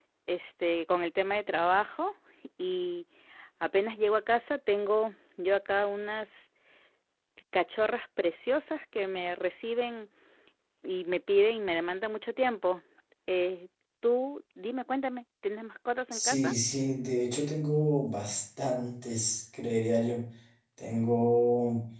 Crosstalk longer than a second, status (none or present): none